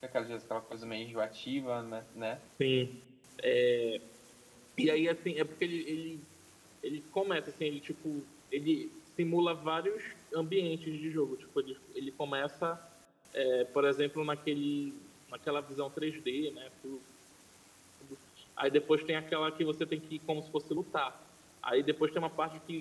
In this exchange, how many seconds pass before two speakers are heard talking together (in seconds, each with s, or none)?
none